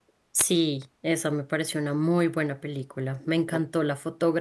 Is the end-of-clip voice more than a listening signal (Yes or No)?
No